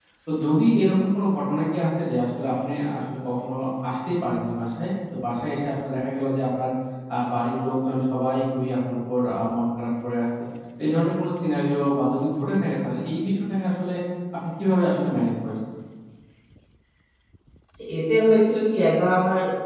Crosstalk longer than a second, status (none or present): none